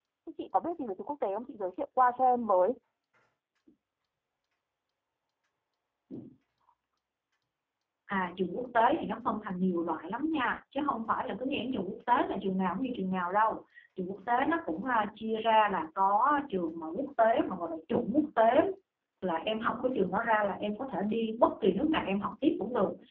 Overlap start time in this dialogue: none

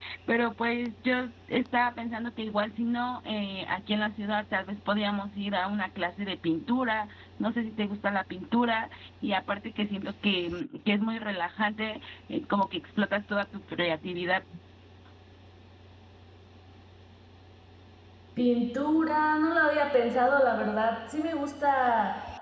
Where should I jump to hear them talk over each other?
none

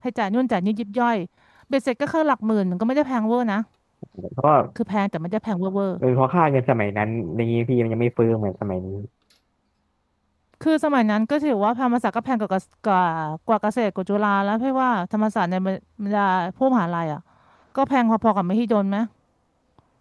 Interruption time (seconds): none

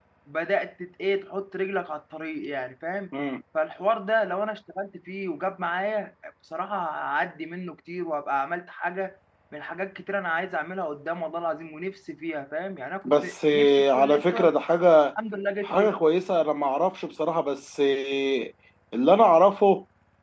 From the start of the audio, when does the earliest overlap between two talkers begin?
13.0 s

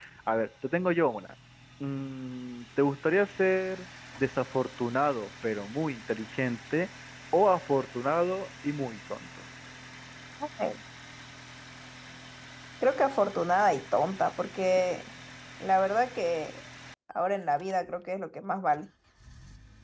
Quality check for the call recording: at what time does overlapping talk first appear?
none

